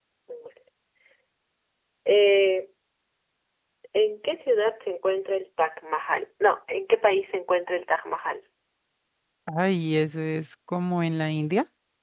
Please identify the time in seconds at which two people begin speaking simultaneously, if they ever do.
none

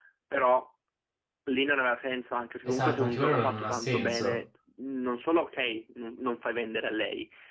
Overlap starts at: 2.6 s

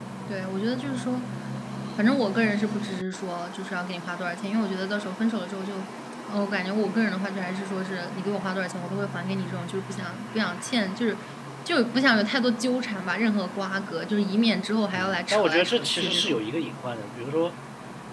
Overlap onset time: 14.9 s

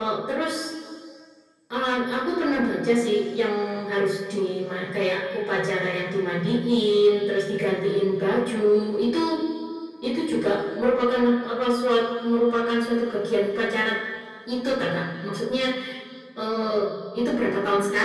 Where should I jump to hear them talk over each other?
none

